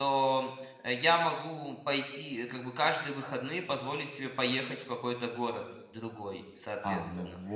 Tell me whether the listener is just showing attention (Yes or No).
No